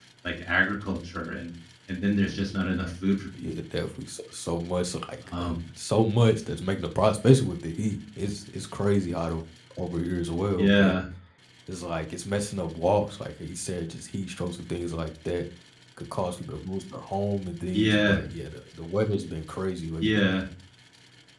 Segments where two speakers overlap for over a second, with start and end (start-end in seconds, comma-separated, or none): none